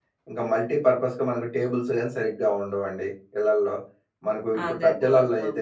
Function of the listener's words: listening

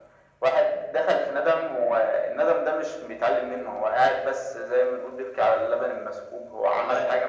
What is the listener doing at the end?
listening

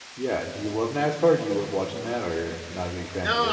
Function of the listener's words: taking over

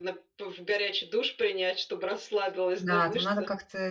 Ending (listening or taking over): taking over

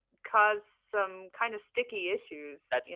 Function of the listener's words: taking over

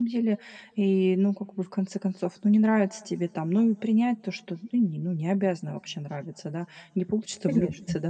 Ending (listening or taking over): listening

